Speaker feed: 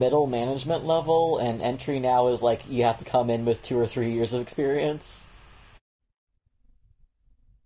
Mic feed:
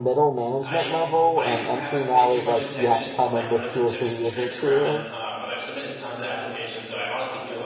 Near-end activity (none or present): present